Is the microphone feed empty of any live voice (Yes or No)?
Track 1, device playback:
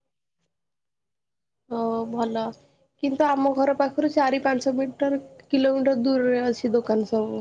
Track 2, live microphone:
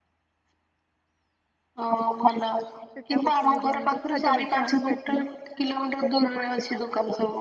No